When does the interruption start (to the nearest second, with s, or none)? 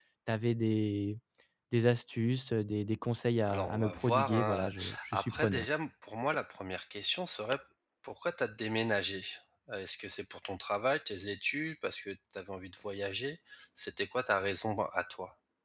3 s